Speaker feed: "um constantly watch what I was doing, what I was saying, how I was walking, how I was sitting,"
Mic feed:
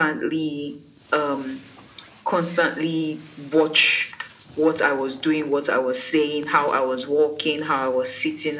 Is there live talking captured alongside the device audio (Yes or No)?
No